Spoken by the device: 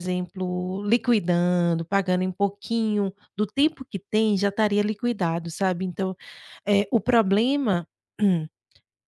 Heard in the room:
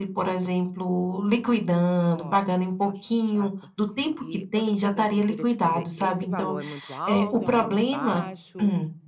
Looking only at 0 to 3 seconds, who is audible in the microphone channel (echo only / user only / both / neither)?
both